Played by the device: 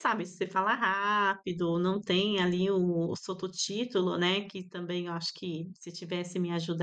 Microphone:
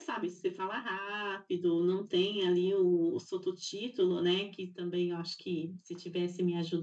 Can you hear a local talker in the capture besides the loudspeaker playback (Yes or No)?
No